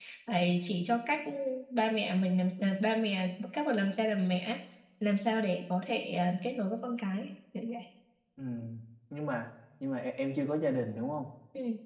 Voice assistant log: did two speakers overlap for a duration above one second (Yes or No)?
No